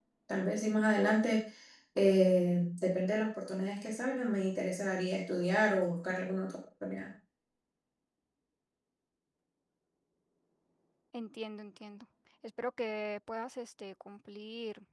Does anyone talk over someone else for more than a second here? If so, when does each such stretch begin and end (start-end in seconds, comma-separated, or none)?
none